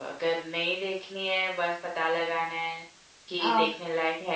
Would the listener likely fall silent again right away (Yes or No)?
Yes